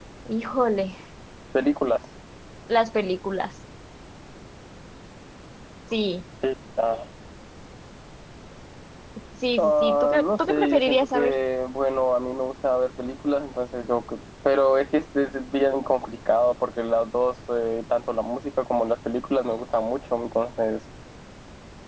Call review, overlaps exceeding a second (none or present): present